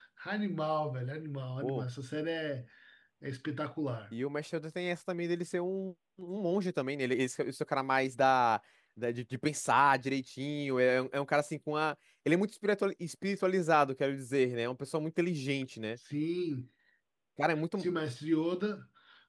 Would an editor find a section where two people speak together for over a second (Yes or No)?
No